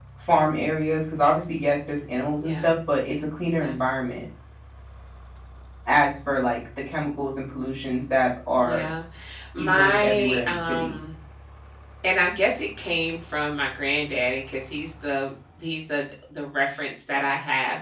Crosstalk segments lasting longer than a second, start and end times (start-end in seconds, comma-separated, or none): 9.6-10.9